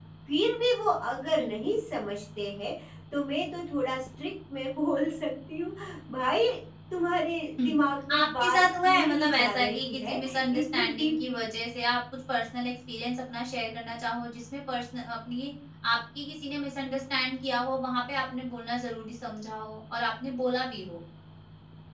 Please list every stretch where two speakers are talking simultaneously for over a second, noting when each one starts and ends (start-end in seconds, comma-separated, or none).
8.1-11.5